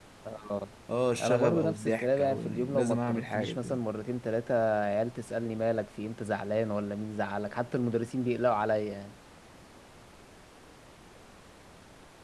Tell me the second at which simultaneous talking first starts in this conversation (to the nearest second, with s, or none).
1 s